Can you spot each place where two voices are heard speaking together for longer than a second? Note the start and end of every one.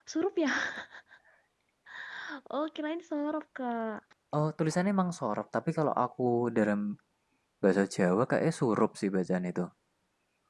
none

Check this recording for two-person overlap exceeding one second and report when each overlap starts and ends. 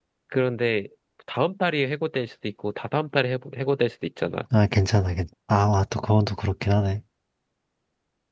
none

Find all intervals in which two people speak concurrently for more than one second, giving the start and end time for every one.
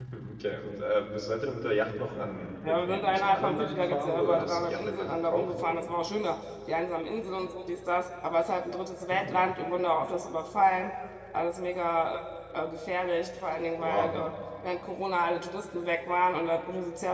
2.6-5.8

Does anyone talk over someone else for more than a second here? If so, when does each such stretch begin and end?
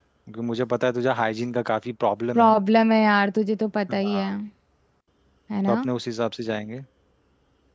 none

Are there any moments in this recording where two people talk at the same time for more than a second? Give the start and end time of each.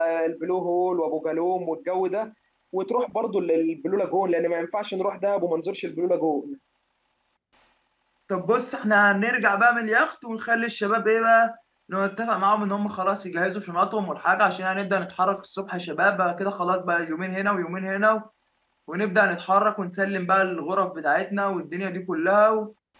none

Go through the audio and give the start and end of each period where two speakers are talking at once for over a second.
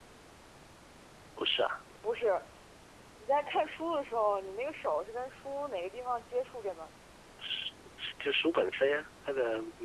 none

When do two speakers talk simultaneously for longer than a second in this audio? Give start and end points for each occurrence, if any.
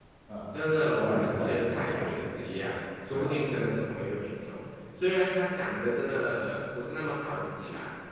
1.0-2.2

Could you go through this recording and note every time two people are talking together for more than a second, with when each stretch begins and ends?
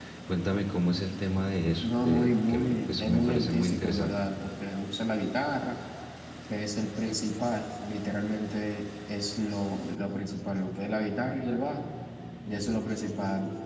1.8-4.1

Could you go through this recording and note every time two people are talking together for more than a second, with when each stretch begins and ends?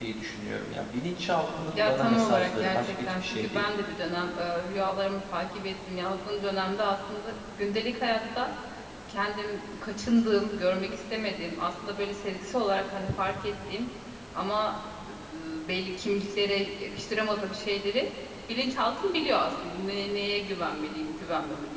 1.7-3.6

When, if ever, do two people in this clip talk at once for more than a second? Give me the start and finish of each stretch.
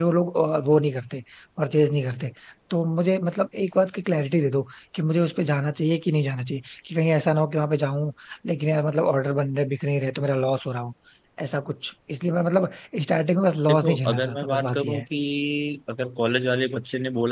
13.7-15.1

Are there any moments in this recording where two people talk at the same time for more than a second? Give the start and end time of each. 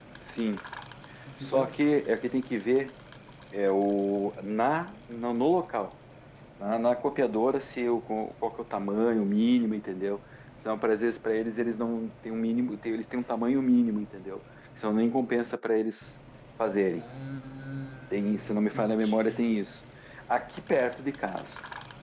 18.1-19.6

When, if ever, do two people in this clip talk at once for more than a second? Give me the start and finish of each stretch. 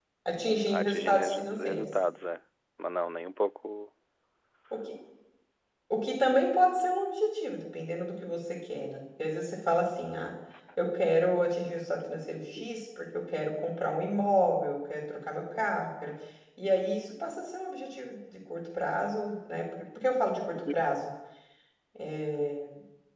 0.7-1.9

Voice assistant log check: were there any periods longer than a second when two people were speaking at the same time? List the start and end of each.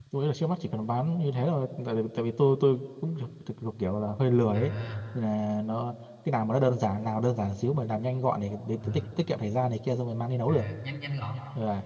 none

